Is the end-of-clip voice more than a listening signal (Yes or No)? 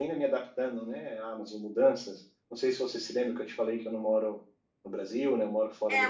Yes